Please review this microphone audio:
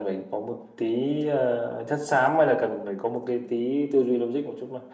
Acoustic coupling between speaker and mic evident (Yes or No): Yes